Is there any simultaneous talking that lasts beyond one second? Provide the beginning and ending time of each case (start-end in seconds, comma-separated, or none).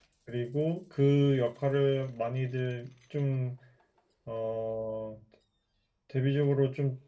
none